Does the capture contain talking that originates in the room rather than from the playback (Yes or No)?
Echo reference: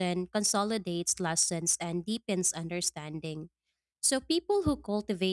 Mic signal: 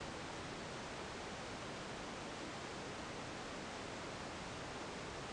No